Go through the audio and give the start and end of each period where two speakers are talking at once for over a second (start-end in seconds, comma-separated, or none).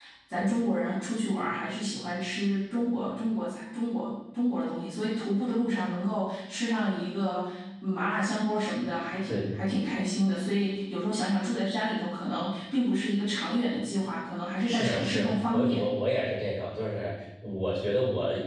14.6-15.9